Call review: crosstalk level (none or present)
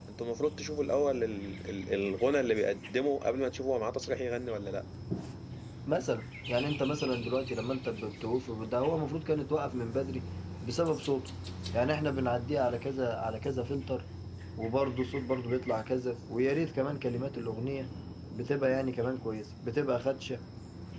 none